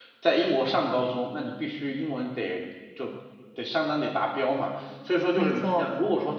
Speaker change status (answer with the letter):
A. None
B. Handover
A